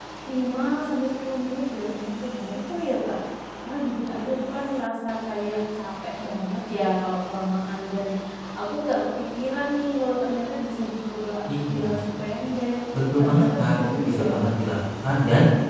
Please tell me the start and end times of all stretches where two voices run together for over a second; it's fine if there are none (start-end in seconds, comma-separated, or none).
13.2-14.5